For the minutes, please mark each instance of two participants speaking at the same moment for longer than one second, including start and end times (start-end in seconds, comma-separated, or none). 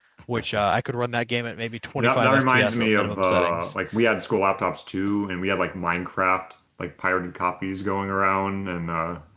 2.0-3.7